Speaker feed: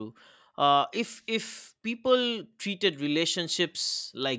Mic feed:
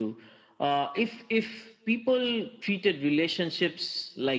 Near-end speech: none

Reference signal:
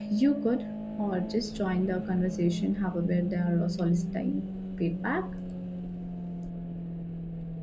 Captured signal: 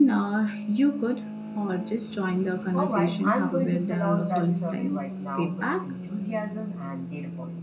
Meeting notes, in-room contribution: present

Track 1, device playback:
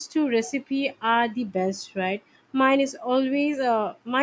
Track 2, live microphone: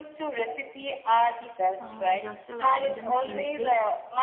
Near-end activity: present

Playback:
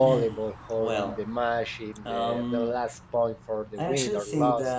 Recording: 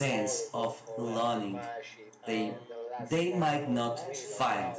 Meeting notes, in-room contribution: present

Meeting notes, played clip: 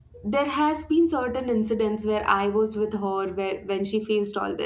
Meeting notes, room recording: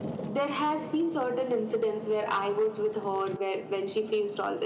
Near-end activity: none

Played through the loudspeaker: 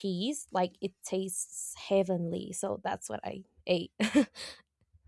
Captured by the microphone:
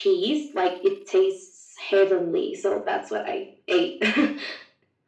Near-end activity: none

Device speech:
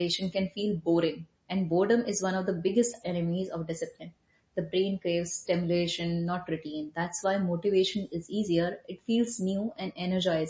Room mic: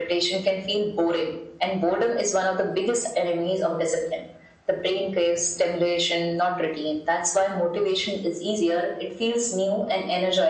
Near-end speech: none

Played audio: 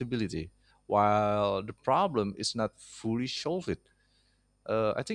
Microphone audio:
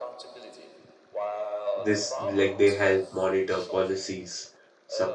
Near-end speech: present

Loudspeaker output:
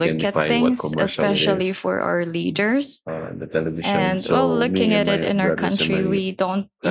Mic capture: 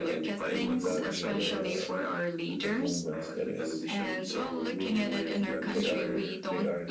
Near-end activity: present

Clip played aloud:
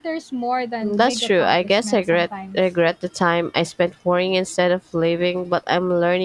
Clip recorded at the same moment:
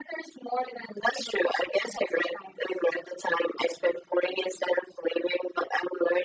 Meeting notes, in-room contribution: none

